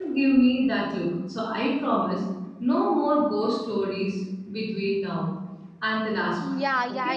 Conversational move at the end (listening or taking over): taking over